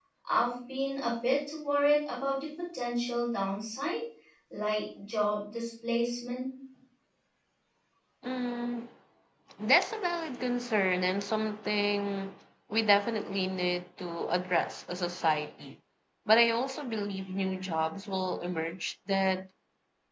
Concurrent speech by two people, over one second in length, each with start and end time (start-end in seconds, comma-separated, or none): none